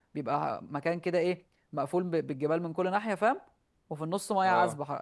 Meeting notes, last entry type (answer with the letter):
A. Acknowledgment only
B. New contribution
A